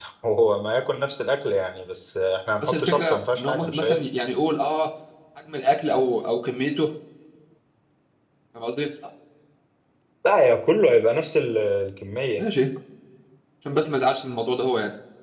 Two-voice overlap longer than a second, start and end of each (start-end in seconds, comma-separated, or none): 2.6-4.0